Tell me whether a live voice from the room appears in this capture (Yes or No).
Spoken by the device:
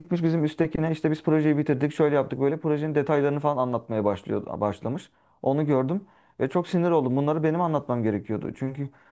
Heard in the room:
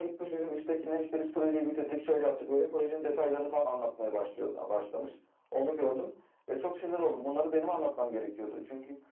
No